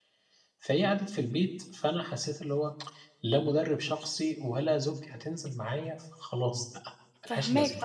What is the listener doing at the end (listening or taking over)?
taking over